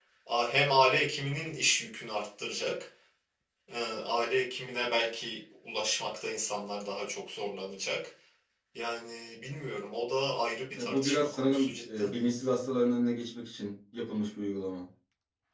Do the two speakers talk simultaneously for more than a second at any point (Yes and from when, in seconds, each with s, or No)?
Yes, from 10.8 s